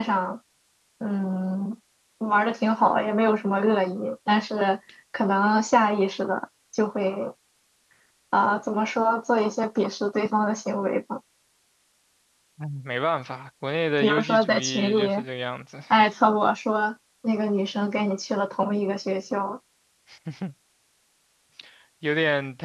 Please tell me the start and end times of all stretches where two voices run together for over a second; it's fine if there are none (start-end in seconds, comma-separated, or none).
14.0-15.2